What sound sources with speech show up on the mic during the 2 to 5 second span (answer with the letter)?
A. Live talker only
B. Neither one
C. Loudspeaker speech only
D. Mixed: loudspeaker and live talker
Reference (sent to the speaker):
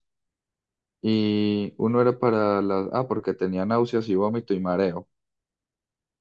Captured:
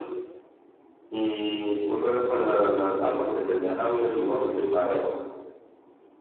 C